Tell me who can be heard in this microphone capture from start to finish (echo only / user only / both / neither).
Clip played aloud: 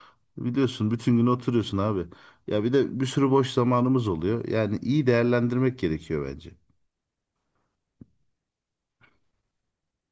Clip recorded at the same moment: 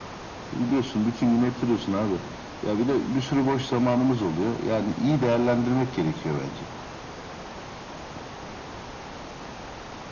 echo only